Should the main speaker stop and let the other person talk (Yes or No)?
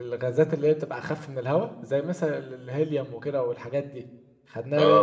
No